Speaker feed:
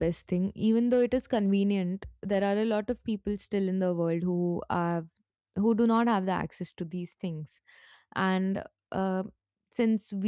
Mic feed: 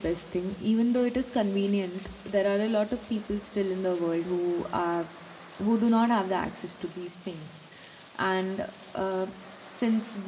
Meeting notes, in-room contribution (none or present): none